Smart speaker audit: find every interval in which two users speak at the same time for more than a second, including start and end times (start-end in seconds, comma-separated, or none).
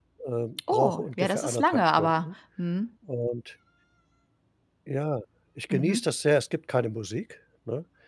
0.7-2.2